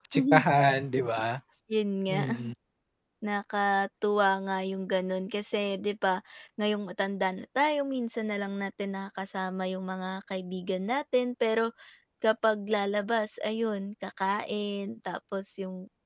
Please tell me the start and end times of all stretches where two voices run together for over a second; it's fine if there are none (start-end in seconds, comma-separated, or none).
none